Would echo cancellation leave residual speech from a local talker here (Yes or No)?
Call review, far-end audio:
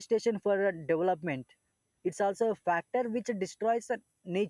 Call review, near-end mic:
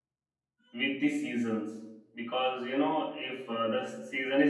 Yes